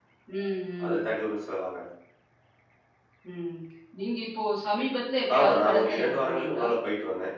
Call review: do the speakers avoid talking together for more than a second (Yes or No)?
No